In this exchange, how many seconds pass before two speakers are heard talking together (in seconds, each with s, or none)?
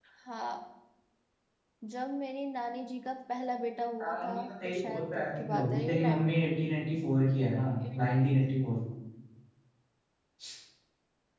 4.0 s